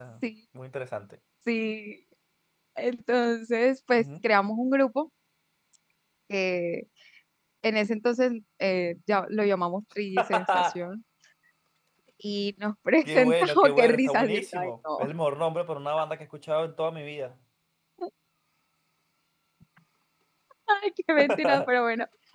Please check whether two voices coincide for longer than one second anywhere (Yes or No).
Yes